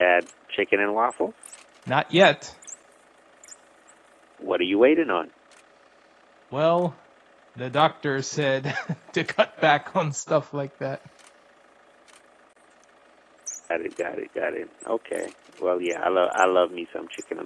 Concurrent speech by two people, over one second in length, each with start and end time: none

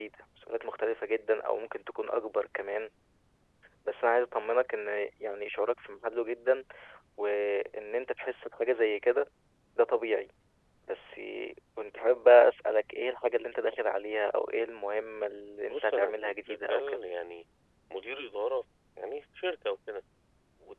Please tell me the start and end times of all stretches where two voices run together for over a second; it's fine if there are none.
15.7-17.0

